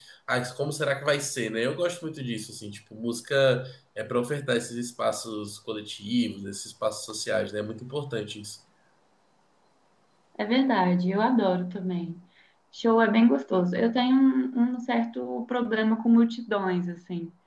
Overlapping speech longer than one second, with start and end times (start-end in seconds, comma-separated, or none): none